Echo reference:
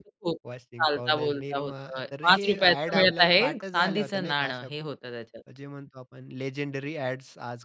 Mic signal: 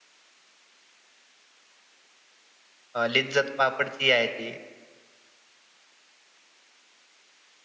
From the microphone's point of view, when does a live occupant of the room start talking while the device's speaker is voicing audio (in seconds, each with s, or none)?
2.9 s